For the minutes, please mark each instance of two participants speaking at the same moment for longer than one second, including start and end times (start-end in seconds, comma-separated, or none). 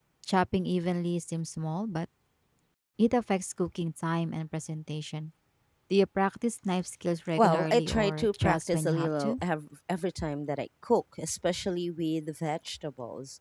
7.4-9.4